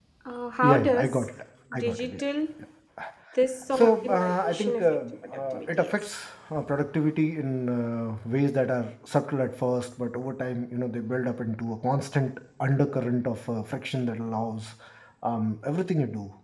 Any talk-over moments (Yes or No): Yes